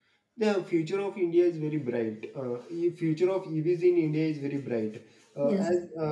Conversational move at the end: listening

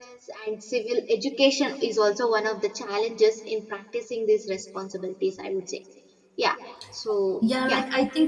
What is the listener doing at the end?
taking over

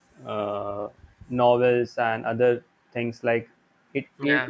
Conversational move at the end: listening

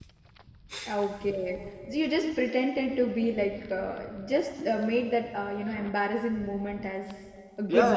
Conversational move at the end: taking over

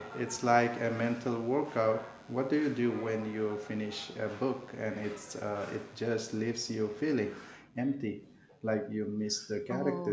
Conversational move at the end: taking over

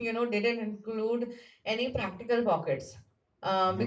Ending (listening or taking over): listening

